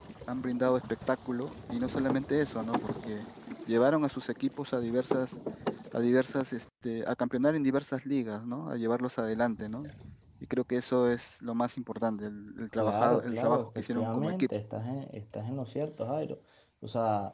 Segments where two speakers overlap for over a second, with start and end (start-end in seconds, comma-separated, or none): 12.8-14.5